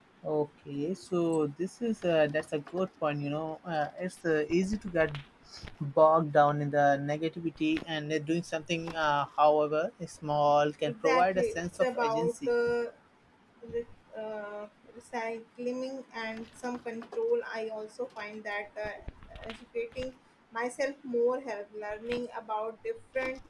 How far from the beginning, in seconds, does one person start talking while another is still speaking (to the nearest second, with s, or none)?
11 s